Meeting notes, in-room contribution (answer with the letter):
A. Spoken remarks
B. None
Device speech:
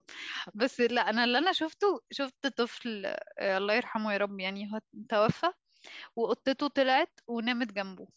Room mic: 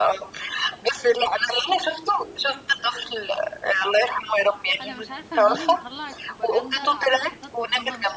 A